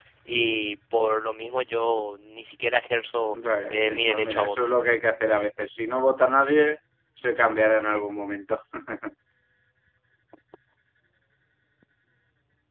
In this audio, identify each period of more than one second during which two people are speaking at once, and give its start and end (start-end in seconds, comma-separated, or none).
3.3-4.5